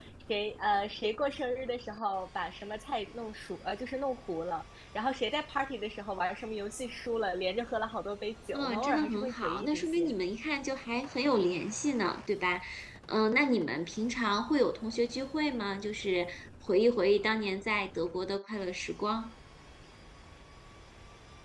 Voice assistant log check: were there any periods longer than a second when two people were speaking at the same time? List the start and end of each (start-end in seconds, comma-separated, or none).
8.5-10.2